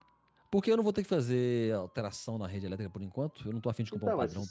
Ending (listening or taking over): taking over